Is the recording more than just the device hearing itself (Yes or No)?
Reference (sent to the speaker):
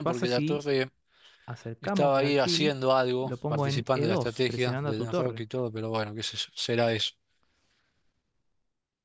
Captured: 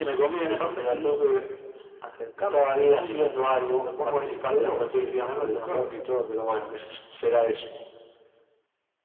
No